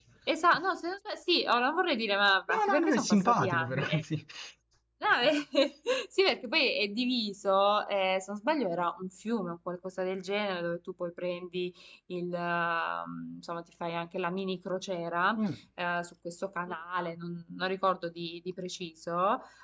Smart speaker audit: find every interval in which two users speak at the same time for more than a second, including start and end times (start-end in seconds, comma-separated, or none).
2.5-3.8